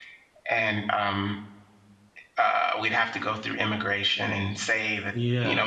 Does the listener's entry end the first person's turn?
No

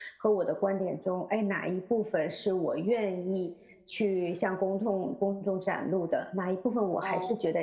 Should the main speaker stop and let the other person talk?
No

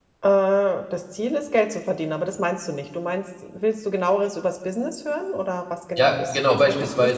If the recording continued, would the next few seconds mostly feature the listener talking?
Yes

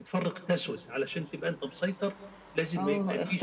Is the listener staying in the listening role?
No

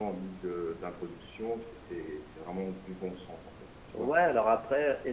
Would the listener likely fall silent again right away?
No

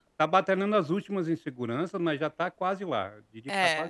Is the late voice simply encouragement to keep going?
No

